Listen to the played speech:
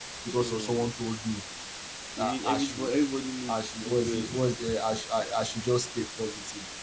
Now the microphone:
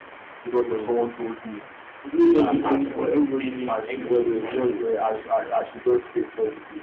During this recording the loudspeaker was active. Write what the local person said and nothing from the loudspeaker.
growth doesn't come from pretending everything is fine, bro.

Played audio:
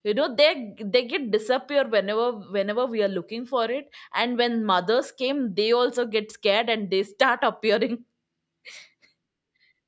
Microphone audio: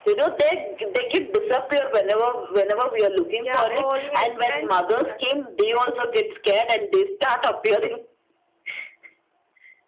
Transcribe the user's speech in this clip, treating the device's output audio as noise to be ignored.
Yeah, always. And yes.

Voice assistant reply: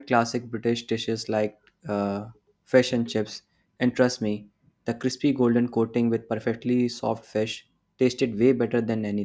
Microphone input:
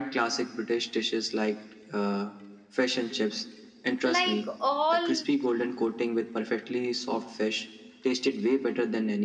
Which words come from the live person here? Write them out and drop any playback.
like all

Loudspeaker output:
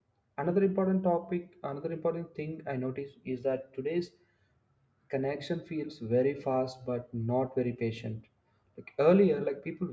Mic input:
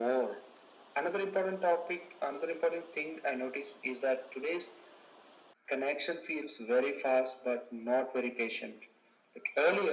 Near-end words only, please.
none

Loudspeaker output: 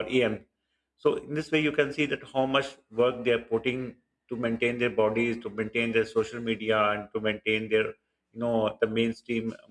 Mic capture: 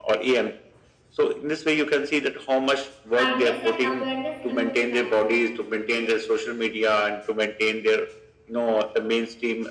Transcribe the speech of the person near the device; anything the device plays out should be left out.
kindness and awareness among fans

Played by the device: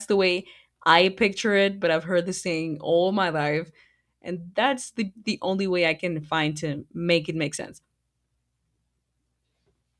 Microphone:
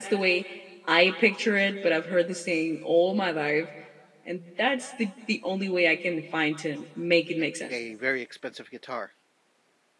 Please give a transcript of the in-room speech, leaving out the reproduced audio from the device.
a, a very expensive guitar.

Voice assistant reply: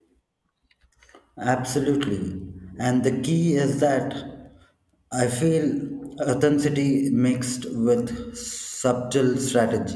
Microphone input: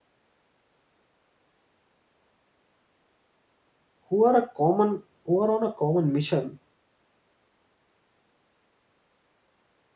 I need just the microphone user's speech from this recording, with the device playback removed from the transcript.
who are a common who are on a common mission,

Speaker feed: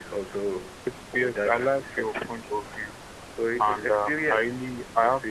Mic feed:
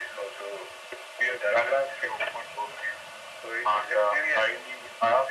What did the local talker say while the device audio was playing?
none

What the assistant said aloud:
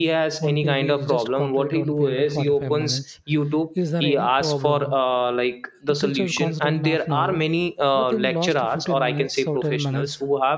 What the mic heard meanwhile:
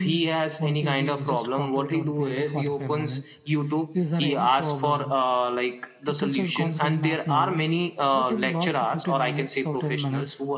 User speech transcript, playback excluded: none

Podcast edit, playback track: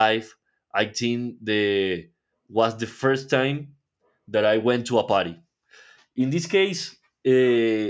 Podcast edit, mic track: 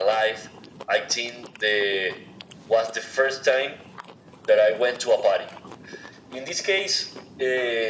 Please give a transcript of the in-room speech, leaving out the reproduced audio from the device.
none

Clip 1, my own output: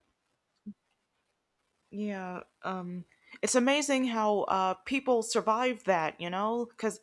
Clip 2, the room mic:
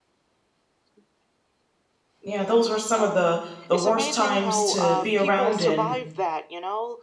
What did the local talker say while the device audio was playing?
yeah. Those were some of the the worst times to be around in.

